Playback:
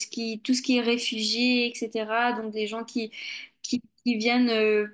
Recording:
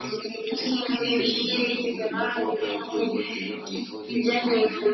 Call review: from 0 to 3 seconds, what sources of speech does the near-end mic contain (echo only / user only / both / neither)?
both